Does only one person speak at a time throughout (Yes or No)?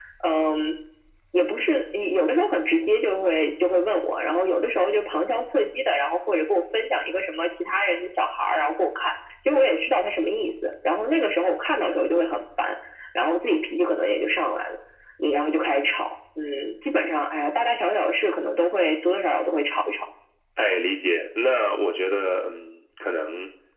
Yes